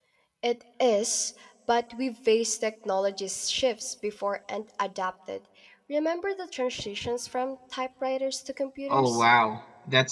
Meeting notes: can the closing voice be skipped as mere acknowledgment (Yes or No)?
No